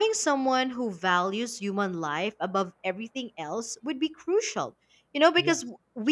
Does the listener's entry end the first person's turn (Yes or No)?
No